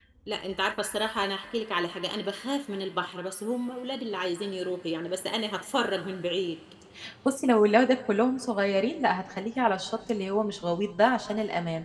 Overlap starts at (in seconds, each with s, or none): none